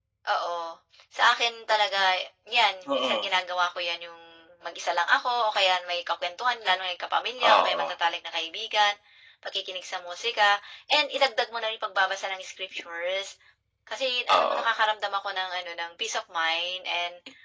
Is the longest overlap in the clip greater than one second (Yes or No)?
No